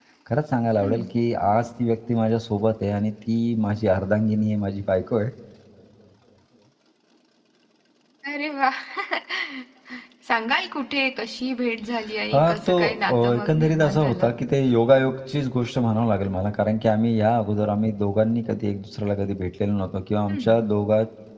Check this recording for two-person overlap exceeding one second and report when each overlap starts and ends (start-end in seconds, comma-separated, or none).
12.3-14.3